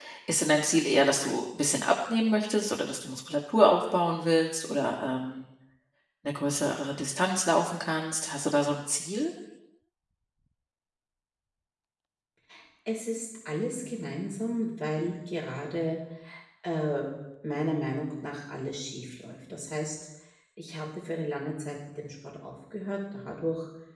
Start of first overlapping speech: none

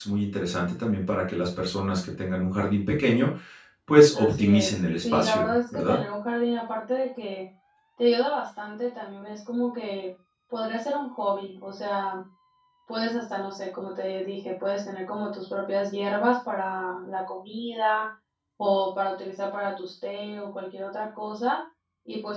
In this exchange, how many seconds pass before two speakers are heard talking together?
4.1 s

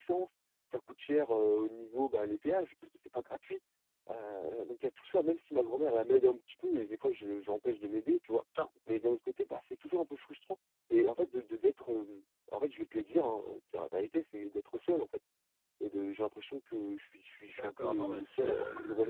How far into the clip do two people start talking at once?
17.5 s

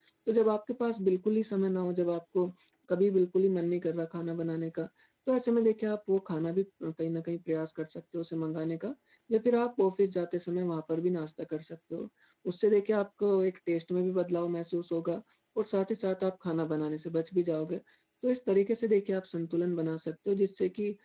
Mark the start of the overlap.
none

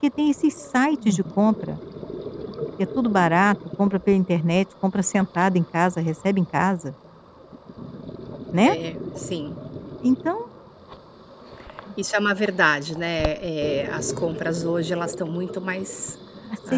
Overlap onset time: none

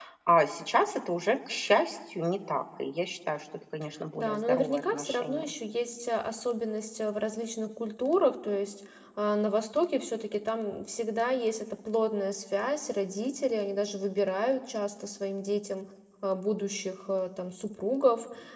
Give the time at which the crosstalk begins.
4.2 s

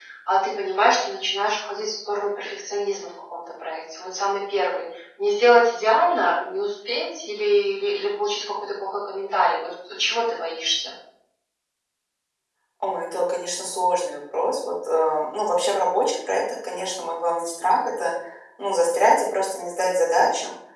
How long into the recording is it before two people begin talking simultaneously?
none

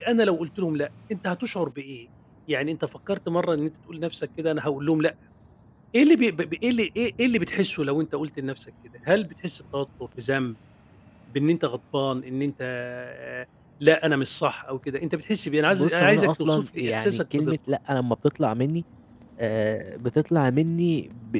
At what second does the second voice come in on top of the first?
15.7 s

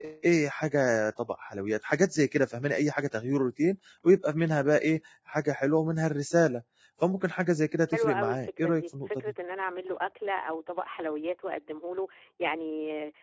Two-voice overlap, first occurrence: 7.9 s

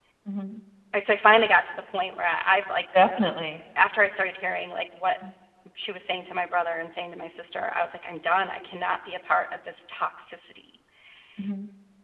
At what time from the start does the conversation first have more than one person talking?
none

